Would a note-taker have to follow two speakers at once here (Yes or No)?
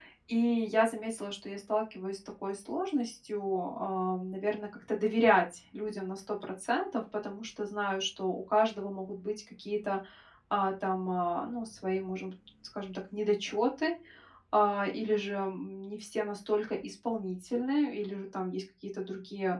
No